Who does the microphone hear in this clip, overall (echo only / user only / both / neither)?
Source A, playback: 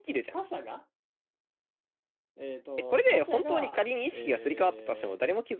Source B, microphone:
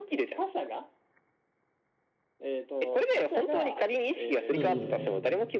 both